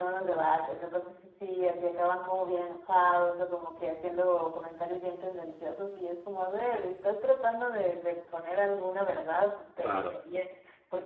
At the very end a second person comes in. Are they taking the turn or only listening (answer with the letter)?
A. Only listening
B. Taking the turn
A